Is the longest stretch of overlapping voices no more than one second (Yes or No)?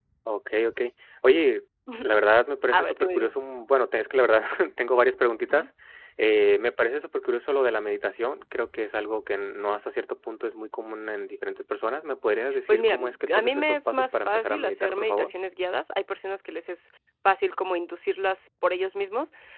No